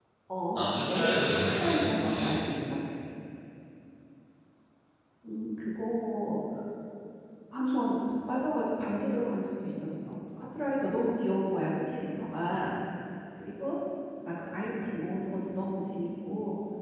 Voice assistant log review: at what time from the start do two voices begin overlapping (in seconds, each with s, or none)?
0.6 s